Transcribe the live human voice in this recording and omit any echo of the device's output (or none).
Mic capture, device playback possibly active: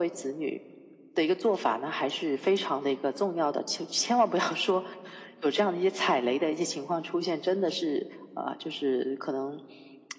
none